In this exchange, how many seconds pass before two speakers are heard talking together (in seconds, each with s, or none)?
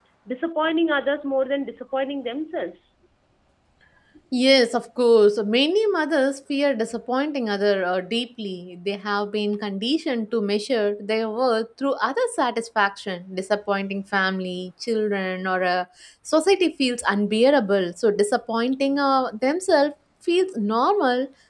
none